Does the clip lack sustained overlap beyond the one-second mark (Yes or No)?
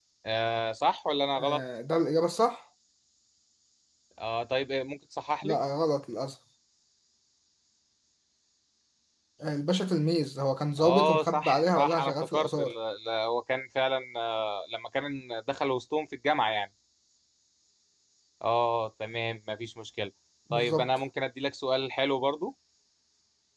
No